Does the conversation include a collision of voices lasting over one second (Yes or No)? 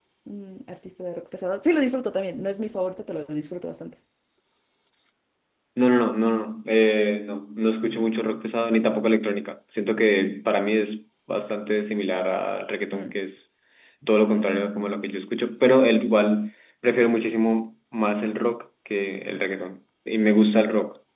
No